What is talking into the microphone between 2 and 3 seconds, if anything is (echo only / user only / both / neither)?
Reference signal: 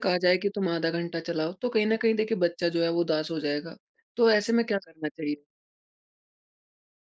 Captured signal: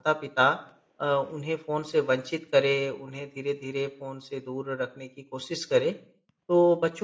user only